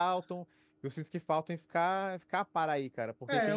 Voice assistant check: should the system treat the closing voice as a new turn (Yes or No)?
Yes